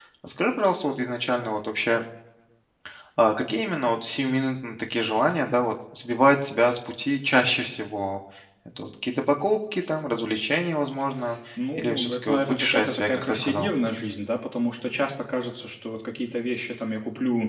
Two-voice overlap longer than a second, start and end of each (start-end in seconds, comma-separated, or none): 11.8-13.7